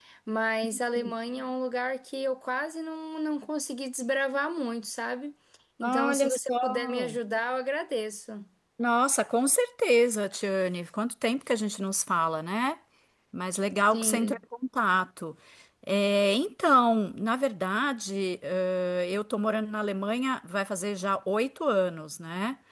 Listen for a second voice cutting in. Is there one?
Yes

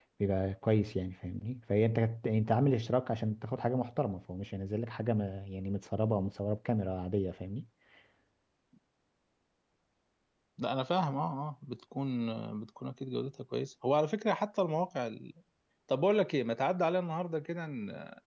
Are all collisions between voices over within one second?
Yes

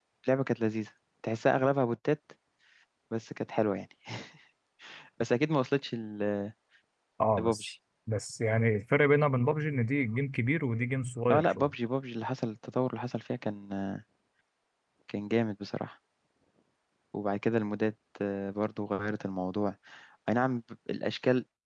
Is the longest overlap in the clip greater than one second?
No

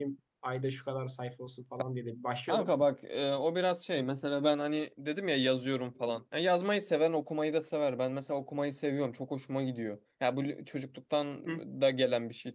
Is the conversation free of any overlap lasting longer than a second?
Yes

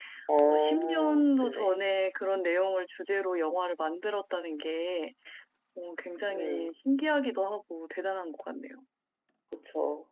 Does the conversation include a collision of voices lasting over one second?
Yes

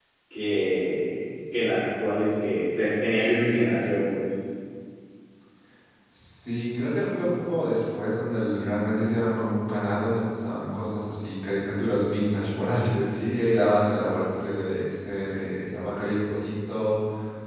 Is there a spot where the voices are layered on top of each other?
No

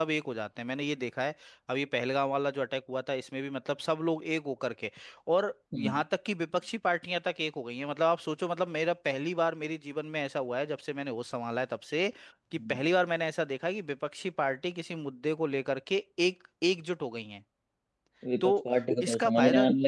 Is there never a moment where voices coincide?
No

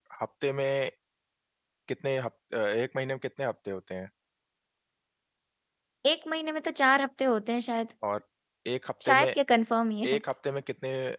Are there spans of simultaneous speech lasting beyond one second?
No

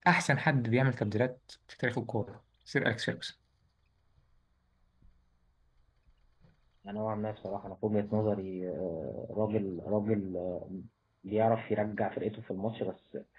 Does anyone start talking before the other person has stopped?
No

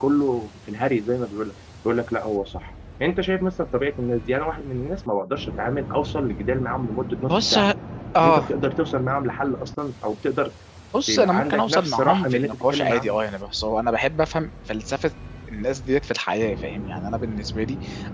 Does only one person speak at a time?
No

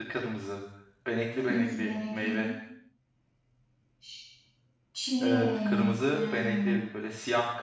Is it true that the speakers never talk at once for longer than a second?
No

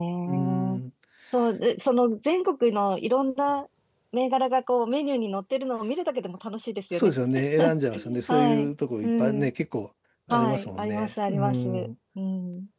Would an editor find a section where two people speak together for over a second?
Yes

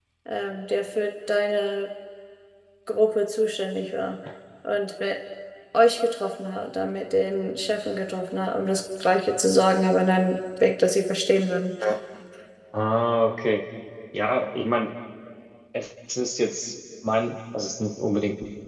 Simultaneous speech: No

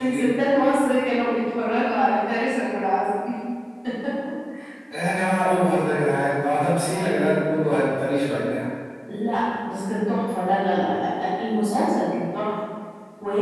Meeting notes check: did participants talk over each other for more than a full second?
No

